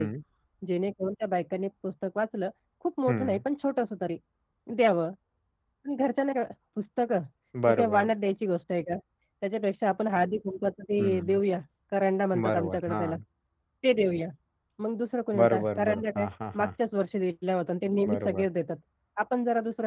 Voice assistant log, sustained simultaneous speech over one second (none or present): present